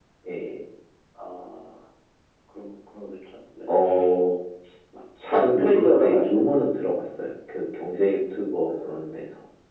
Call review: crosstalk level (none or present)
present